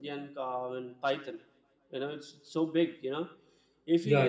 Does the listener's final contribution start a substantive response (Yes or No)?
Yes